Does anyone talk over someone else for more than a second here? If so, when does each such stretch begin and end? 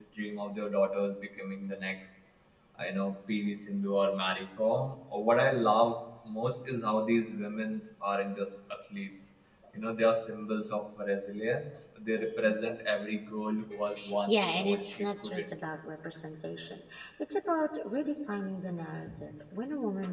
14.3-15.5

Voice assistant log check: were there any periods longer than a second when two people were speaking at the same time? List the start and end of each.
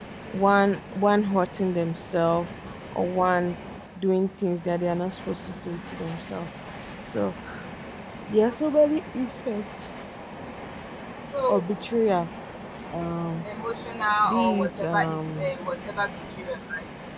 14.3-15.5

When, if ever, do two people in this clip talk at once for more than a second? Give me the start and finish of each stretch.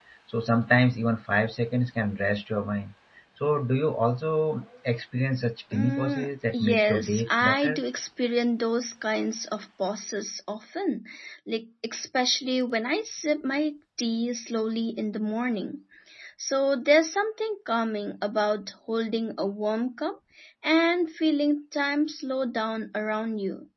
5.7-7.8

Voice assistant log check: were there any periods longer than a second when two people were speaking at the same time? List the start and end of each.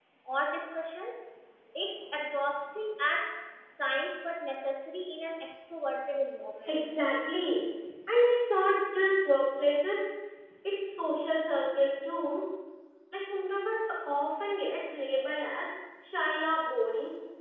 none

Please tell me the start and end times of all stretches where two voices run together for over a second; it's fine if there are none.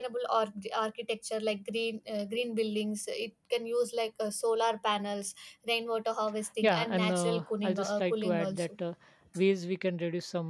6.6-8.7

